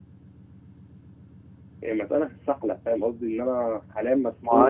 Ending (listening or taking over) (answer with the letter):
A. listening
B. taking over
B